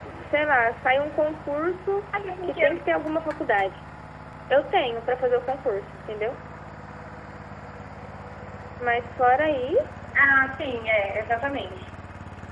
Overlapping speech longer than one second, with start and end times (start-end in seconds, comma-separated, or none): none